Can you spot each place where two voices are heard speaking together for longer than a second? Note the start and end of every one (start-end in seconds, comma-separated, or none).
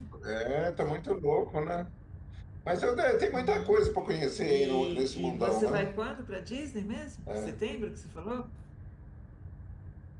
4.5-5.9